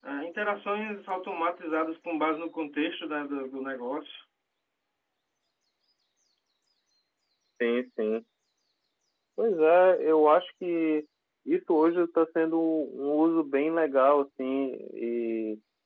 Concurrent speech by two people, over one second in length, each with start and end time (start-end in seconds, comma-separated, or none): none